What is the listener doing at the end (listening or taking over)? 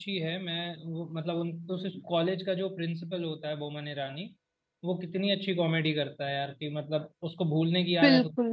listening